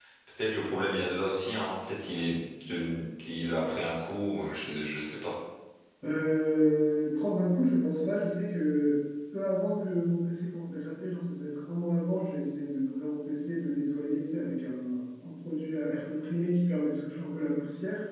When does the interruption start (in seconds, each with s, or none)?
none